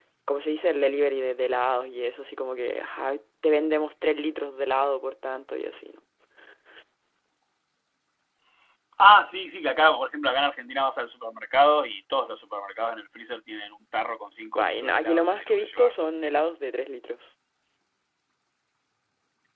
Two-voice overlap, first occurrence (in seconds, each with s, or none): 14.6 s